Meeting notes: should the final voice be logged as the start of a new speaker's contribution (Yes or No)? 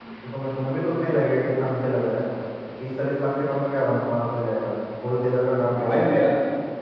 Yes